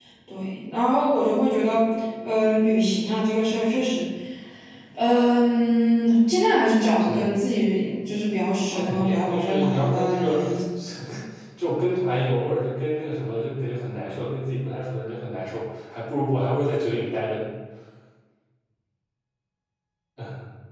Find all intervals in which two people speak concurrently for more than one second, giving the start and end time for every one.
8.7-10.3

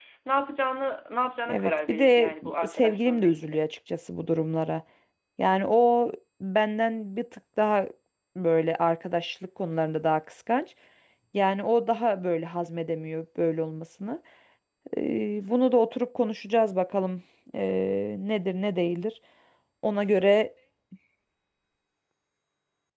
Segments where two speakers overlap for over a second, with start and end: 1.5-3.6

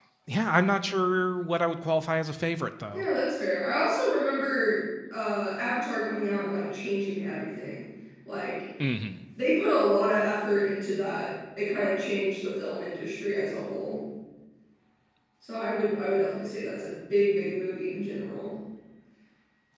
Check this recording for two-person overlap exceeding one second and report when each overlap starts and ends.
none

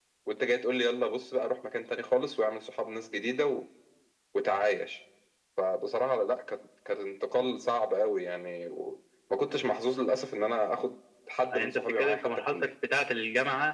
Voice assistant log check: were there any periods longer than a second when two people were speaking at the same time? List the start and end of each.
11.5-12.7

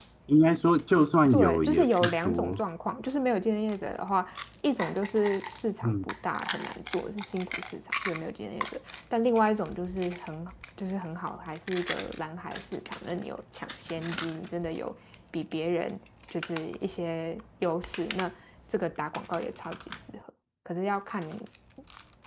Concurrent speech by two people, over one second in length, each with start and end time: 1.3-2.6

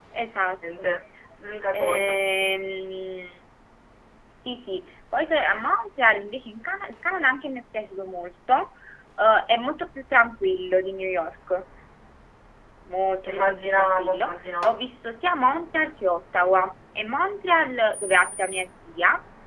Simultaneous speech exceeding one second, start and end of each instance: 13.2-14.7

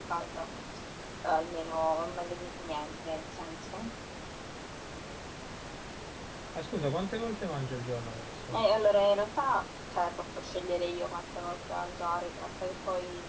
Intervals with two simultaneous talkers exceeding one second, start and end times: none

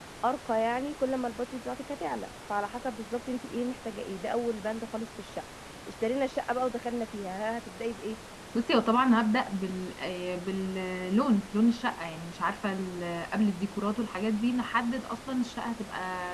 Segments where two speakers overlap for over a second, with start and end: none

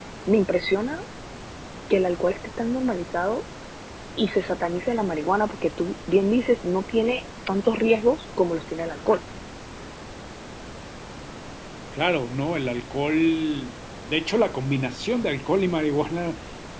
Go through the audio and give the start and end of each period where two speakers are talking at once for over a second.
none

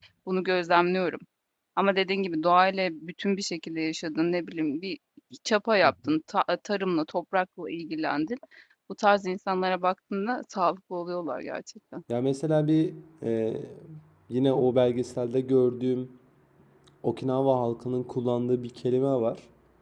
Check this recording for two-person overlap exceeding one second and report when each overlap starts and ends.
none

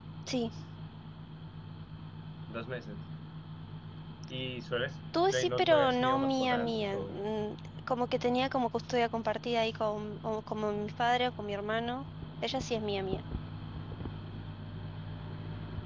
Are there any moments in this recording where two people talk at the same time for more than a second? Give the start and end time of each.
5.3-7.1

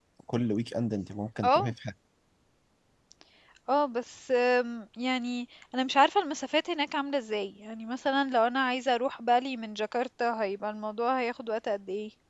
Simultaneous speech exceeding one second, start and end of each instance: none

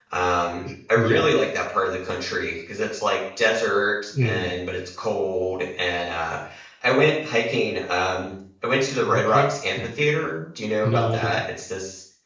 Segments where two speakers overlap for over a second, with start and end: none

